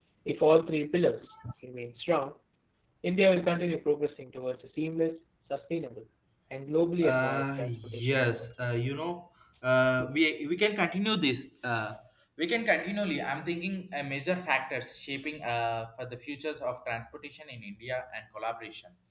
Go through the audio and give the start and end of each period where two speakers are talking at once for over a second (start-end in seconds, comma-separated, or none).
7.0-8.3